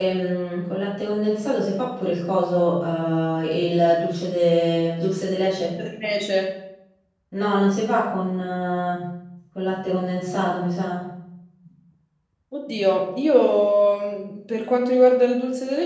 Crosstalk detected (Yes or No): No